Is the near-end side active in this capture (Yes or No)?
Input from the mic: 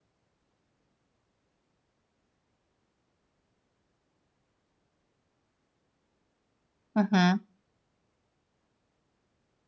Yes